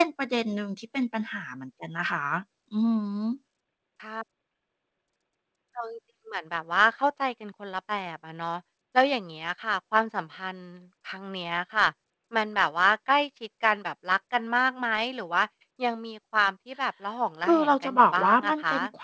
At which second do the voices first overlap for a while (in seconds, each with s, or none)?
17.4 s